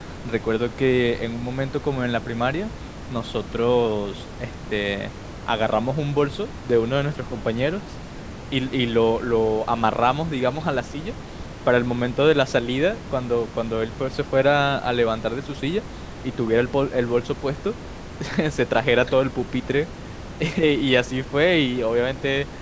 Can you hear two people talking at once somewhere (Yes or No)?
No